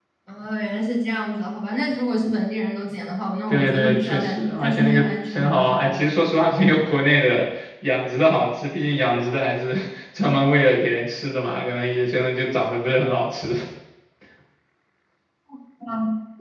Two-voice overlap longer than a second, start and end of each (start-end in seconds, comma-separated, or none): 3.5-6.0